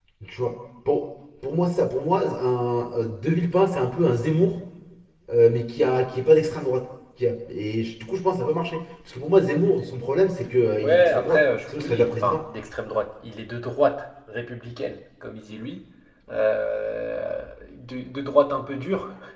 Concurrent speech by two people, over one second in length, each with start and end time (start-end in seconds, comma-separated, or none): 10.8-12.4